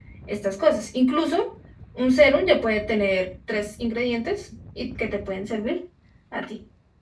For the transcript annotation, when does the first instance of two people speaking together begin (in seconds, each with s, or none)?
none